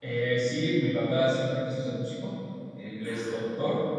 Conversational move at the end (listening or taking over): listening